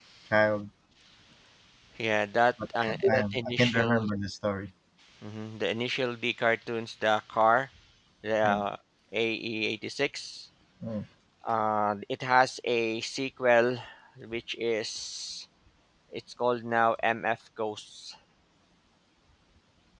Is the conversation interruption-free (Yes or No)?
No